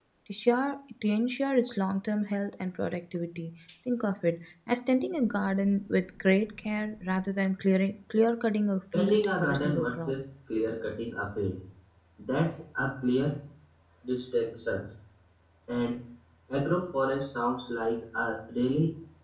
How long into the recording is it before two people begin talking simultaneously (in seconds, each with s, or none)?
8.9 s